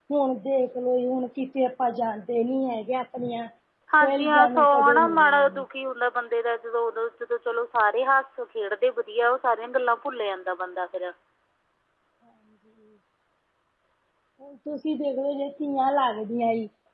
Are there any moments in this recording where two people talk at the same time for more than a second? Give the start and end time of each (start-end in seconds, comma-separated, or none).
4.0-5.6